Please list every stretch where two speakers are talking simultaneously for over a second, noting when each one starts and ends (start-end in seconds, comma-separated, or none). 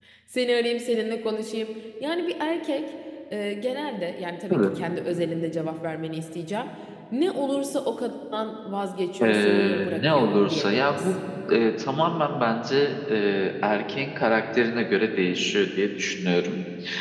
9.2-11.1